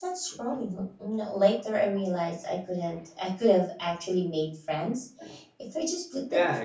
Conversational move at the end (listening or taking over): taking over